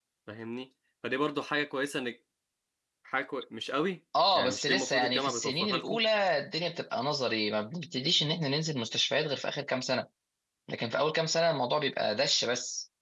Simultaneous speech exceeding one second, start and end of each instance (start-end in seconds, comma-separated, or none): 4.3-6.0